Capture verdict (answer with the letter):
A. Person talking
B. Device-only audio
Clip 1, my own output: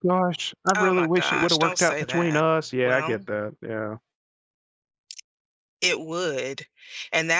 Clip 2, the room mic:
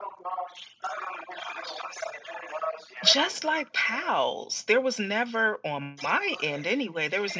A